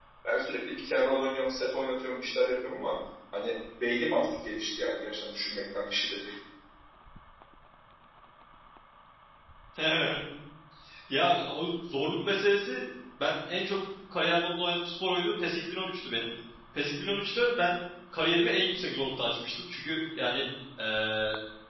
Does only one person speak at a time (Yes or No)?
Yes